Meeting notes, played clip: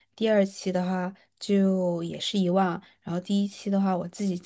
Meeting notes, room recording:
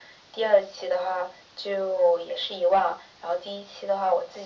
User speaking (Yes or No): No